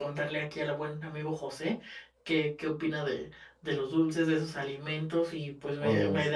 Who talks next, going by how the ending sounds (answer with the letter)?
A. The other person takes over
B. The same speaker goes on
B